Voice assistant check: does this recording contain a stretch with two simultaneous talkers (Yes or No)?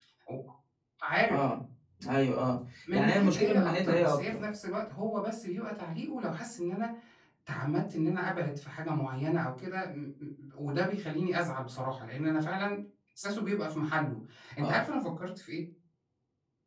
Yes